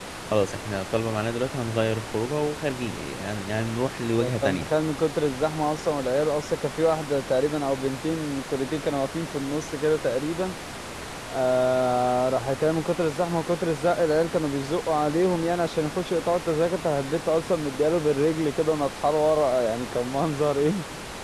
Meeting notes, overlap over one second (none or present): none